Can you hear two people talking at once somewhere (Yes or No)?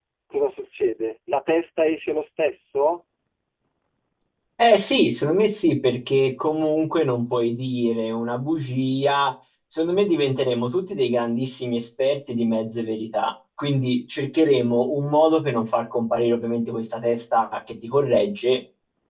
No